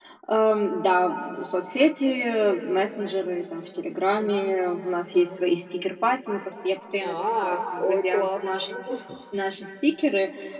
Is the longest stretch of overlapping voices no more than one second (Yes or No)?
No